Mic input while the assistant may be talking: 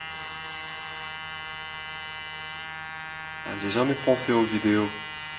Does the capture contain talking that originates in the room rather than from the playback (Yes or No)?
Yes